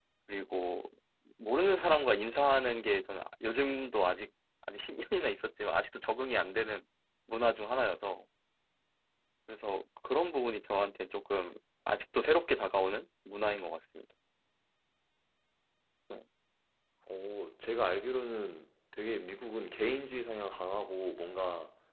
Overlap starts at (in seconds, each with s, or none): none